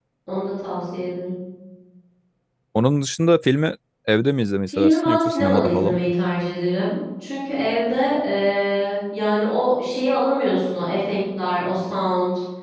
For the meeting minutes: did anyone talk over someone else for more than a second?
Yes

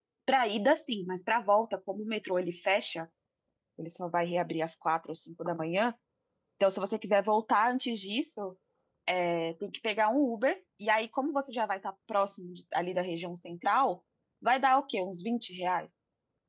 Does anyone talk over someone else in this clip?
No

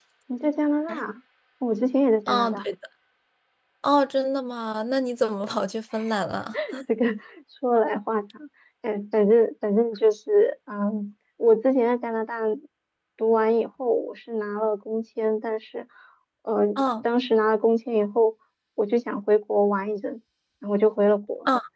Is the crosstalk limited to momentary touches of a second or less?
Yes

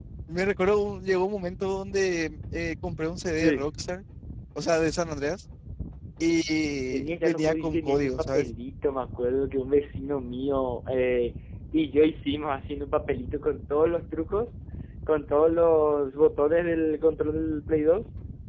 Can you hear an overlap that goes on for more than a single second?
Yes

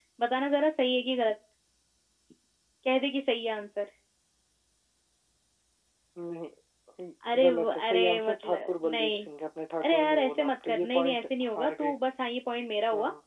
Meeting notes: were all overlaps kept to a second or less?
No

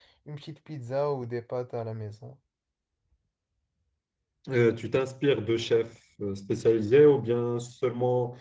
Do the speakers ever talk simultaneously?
No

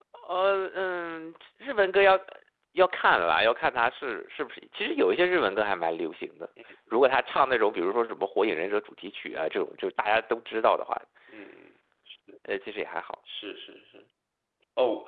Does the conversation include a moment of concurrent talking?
No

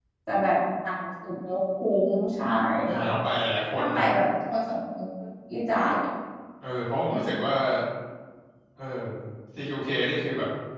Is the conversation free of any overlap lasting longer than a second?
Yes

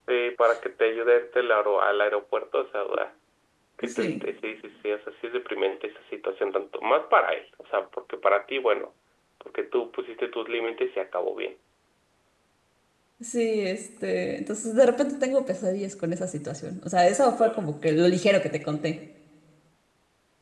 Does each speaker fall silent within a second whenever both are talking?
Yes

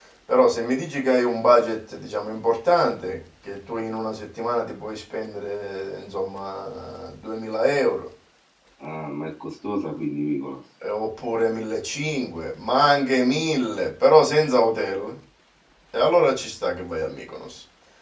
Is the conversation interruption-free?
Yes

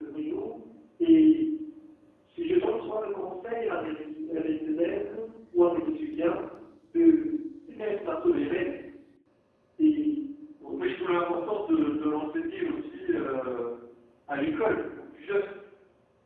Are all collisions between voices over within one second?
Yes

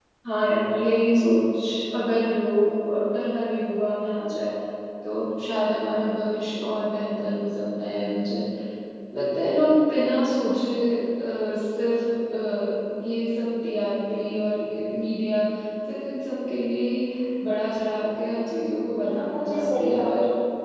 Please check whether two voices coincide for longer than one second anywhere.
Yes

